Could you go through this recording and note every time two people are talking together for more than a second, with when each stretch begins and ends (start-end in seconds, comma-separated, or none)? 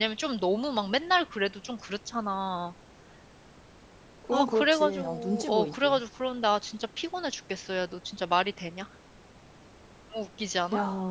4.3-6.0